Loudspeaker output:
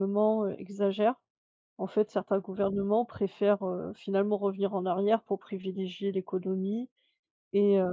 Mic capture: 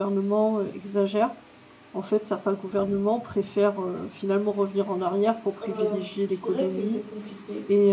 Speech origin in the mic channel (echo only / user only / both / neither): both